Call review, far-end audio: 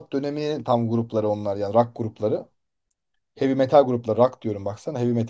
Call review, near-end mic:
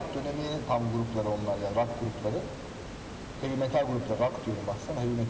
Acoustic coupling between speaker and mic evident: Yes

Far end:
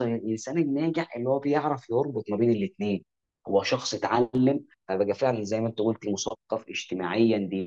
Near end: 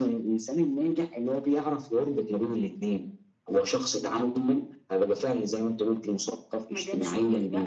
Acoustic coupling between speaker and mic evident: Yes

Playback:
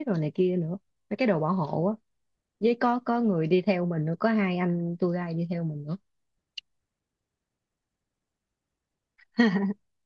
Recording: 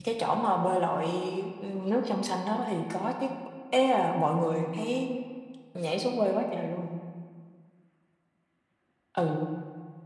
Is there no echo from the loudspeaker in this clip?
Yes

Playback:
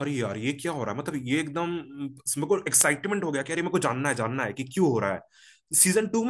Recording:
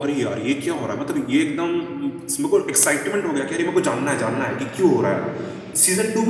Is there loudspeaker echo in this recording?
Yes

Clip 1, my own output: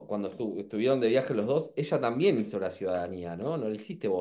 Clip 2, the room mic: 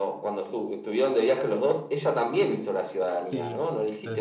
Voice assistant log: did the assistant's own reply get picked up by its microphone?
Yes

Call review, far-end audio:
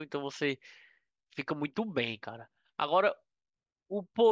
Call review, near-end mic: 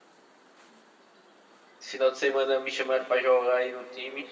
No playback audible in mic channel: Yes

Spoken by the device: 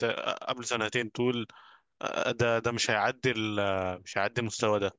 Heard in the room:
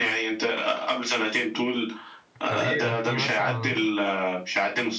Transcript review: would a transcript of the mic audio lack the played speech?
No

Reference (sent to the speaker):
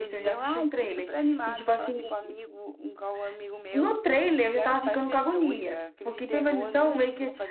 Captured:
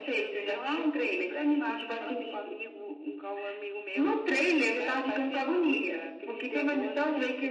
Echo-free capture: No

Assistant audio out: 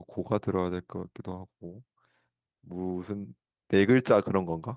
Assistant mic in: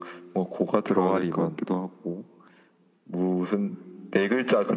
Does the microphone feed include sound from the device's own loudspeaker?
Yes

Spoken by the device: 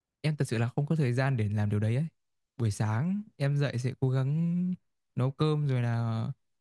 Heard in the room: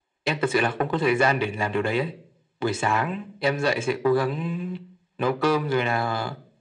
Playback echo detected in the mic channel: Yes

